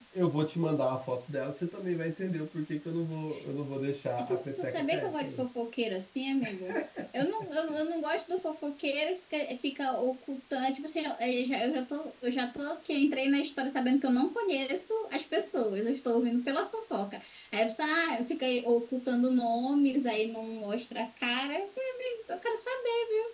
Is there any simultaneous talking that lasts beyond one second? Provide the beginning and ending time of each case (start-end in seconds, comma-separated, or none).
4.2-5.4